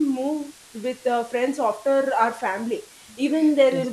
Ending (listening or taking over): listening